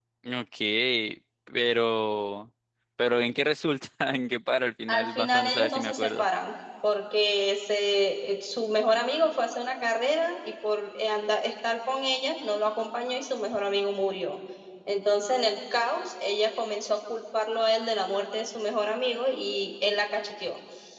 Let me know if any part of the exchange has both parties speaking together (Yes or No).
Yes